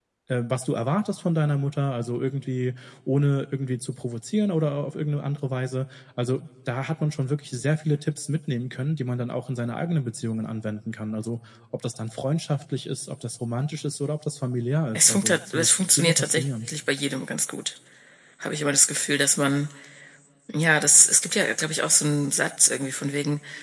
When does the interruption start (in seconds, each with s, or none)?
14.9 s